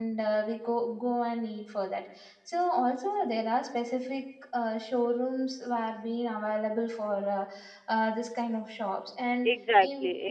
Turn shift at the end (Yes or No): Yes